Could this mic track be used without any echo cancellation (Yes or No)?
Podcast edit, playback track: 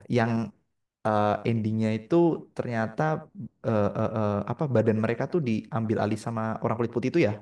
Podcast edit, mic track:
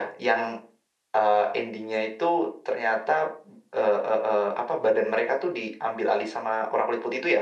No